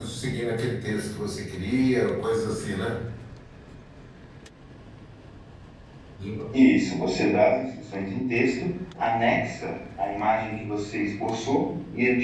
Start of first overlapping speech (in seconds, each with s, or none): none